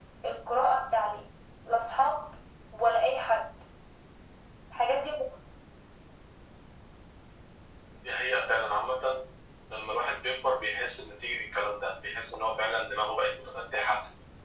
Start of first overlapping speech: none

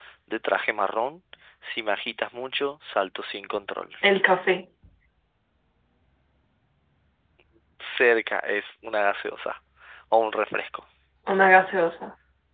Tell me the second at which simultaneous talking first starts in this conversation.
none

